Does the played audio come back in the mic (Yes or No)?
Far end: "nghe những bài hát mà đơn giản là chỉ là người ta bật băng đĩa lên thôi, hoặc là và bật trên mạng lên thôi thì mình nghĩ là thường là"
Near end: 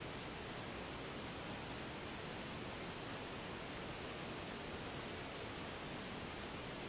No